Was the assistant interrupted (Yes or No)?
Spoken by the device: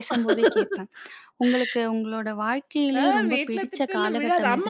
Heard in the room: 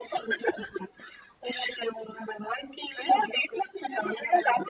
No